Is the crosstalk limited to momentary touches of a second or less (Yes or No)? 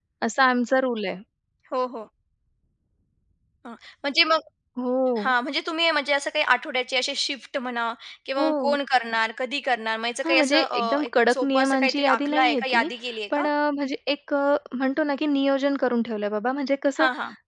No